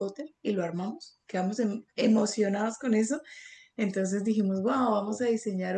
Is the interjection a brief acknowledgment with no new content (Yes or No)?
Yes